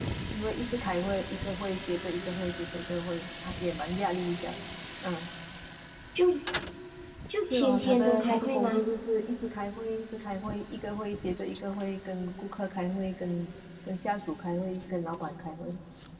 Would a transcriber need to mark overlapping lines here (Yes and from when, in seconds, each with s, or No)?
Yes, from 7.4 s